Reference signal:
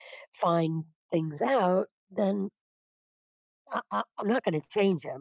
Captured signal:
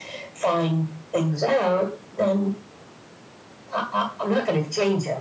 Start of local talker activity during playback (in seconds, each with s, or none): none